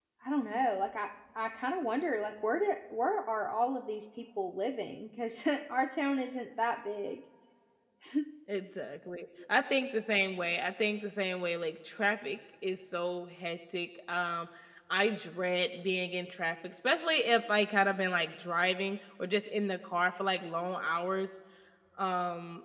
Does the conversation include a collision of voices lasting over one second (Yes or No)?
No